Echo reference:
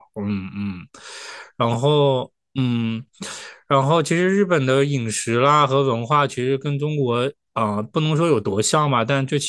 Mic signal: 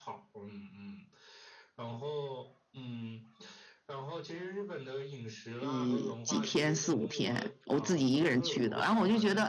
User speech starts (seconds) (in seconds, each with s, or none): 5.6 s